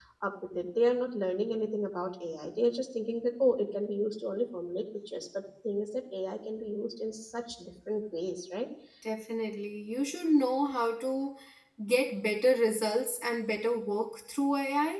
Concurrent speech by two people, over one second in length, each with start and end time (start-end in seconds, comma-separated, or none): none